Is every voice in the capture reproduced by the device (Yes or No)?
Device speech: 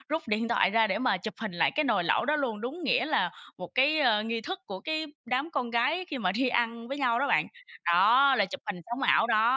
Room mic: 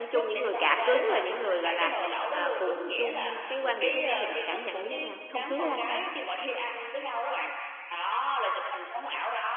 No